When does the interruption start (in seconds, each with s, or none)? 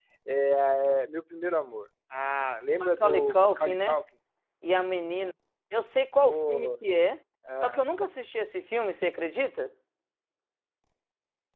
2.8 s